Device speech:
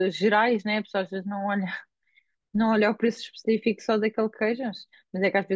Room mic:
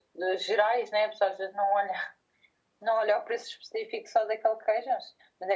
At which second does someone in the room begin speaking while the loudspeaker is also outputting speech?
none

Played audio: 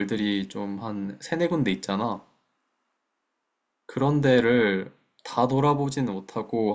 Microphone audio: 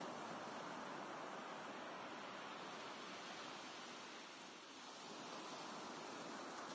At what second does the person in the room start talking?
none

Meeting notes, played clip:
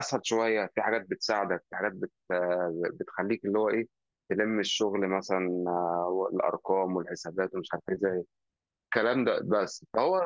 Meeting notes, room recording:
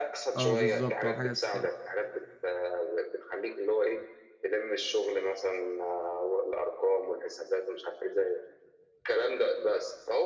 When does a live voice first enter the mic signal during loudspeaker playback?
0 s

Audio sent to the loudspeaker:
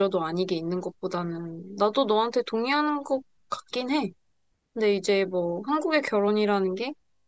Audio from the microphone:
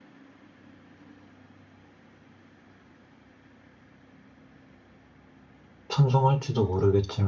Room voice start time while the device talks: 6 s

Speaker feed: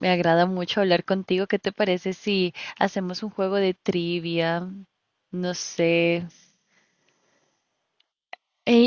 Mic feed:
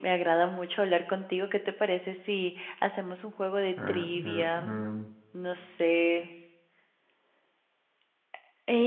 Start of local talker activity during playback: 4 s

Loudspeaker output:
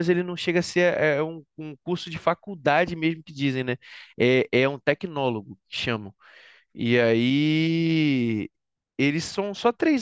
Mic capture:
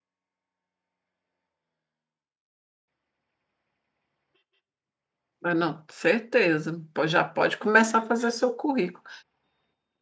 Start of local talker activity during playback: 5 s

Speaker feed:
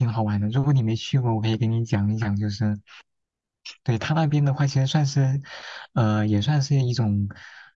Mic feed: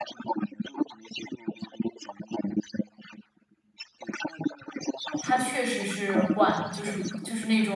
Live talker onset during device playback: 5 s

